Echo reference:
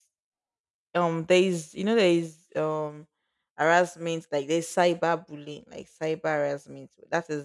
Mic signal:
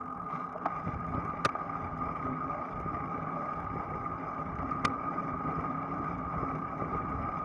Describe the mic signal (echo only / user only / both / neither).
neither